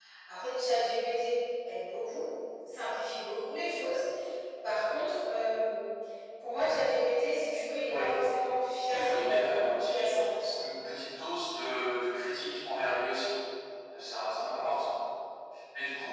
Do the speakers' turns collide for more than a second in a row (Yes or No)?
Yes